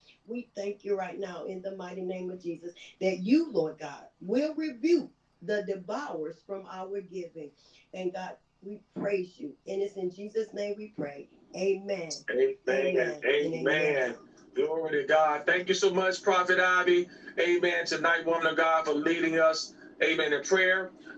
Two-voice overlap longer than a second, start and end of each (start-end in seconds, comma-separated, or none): 12.7-14.0